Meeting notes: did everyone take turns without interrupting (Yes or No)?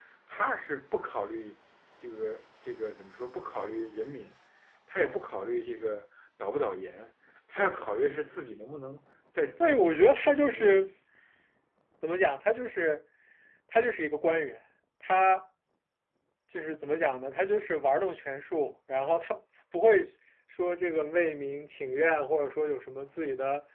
No